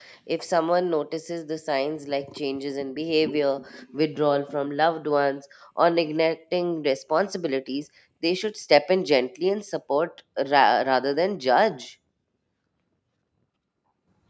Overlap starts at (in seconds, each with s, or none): none